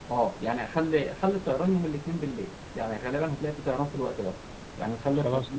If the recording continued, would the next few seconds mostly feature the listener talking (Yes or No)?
No